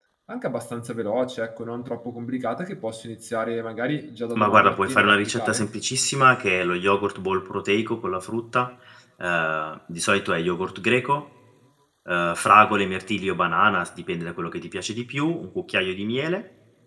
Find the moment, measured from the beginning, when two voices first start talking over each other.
4.3 s

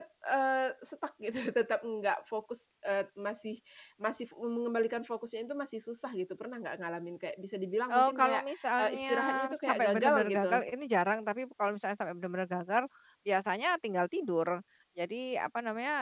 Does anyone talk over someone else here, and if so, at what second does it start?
7.9 s

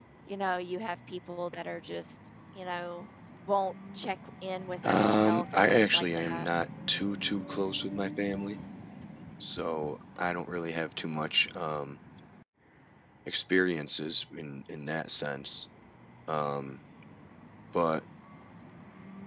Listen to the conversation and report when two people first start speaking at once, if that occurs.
4.8 s

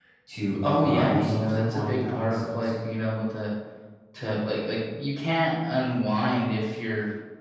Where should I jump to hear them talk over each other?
0.6 s

